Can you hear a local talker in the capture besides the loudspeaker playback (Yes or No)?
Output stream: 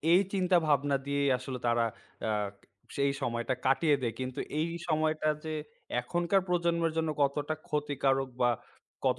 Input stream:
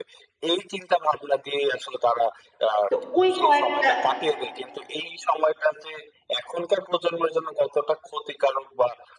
Yes